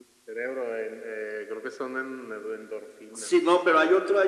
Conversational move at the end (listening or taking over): taking over